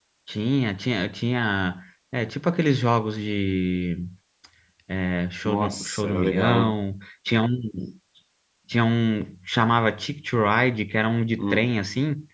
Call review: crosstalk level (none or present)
present